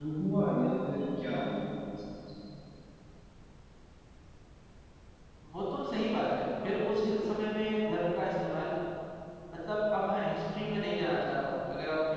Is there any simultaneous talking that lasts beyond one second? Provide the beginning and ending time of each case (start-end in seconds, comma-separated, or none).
none